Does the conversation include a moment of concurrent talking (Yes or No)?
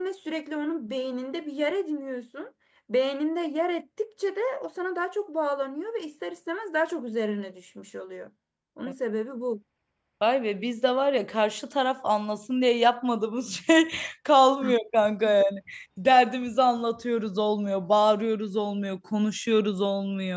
No